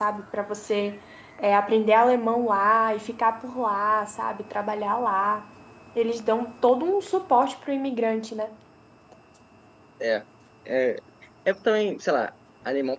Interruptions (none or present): none